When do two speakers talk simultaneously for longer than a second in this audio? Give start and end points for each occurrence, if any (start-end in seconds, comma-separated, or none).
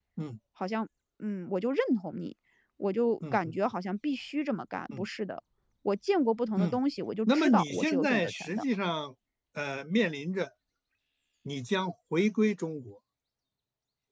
7.3-8.6